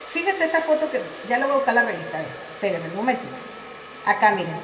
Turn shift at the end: No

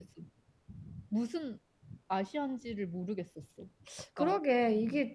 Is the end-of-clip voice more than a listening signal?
Yes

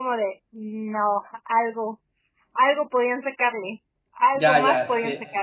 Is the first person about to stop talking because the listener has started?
Yes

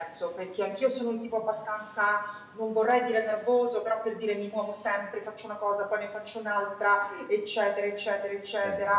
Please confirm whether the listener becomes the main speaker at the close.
No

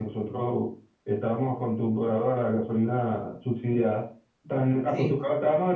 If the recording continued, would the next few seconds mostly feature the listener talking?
No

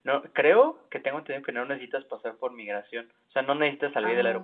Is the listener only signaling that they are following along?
No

